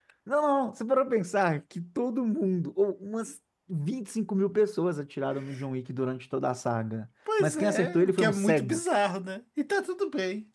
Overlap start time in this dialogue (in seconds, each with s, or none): 7.3 s